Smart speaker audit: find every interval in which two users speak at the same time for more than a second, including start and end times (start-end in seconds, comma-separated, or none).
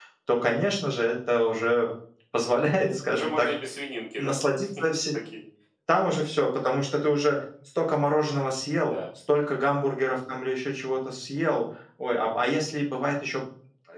none